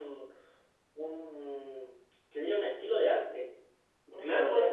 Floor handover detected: Yes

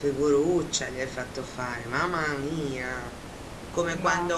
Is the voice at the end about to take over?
No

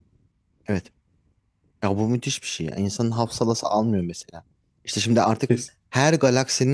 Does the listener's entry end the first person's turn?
No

